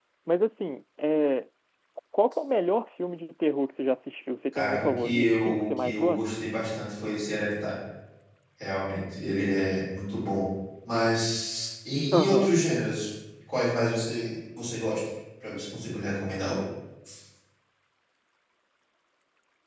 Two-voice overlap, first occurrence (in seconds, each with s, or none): 4.5 s